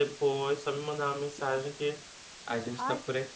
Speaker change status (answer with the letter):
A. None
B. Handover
B